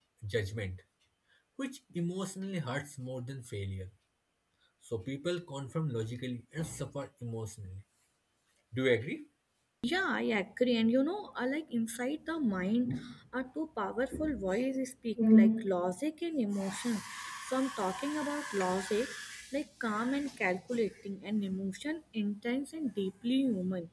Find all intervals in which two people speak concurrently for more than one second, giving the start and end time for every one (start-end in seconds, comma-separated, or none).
none